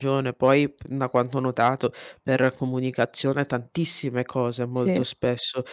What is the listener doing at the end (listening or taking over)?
listening